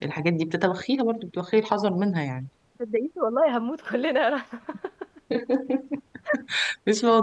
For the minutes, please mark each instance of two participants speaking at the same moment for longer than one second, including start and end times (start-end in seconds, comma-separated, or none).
none